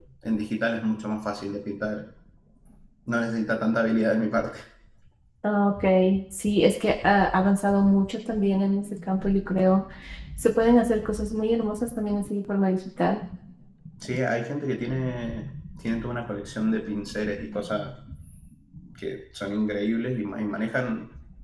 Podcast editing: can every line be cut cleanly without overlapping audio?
Yes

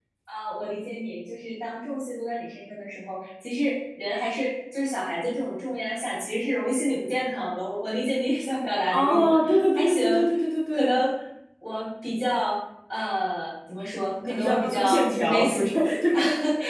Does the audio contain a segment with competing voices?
Yes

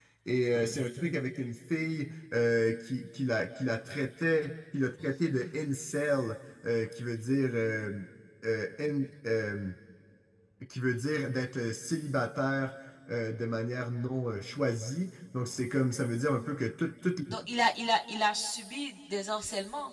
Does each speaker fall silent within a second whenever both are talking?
Yes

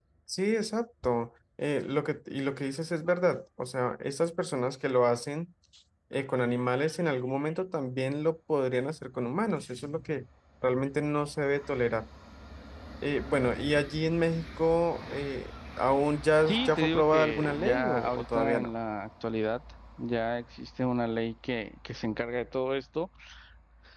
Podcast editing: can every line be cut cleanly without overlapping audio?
No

